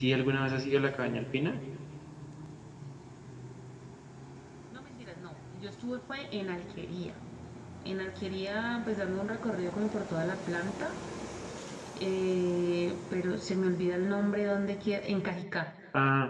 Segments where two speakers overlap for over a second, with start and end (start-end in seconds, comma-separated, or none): none